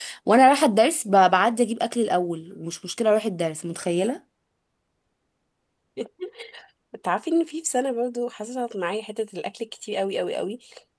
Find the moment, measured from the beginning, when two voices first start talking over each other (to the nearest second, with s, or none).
none